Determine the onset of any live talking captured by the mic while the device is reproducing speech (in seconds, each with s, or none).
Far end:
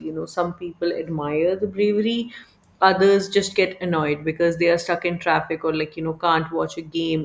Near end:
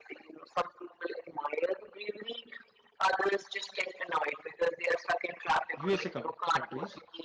5.7 s